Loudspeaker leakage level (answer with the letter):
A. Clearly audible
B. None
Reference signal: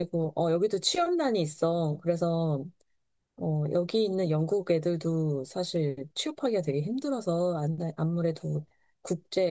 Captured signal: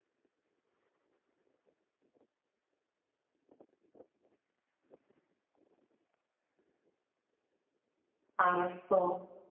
B